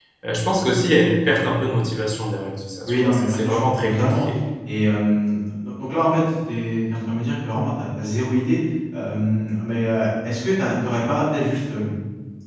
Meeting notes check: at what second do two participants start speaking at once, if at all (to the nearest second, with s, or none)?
3 s